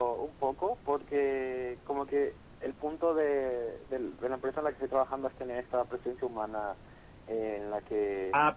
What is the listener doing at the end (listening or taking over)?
taking over